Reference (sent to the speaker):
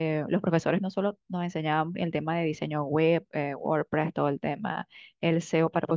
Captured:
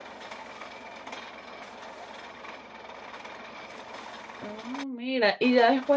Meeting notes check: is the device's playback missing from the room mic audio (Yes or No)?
Yes